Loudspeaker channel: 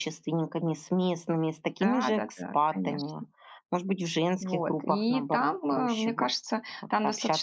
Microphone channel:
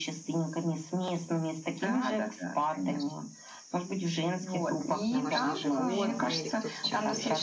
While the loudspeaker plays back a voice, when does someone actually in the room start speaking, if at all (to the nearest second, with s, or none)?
5 s